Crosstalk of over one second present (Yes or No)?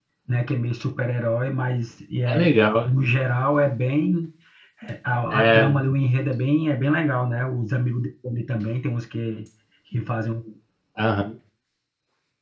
No